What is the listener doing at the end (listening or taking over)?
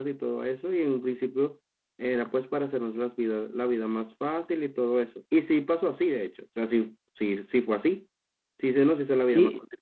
listening